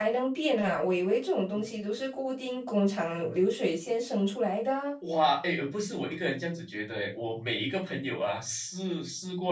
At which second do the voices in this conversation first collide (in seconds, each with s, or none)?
none